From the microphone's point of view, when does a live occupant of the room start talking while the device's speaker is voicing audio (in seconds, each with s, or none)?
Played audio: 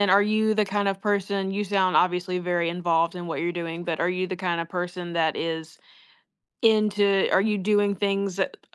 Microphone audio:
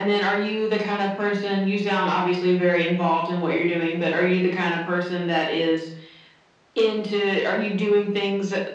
none